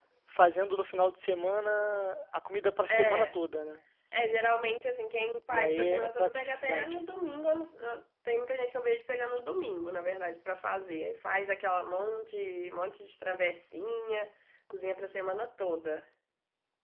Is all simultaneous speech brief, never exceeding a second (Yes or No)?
No